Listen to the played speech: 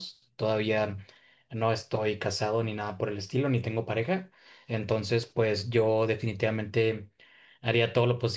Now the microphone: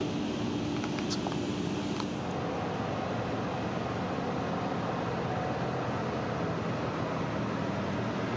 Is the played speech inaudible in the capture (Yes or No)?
Yes